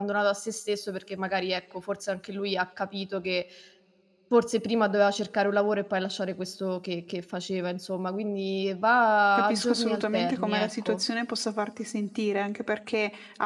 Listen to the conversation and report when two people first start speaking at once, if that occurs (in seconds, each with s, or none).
9.3 s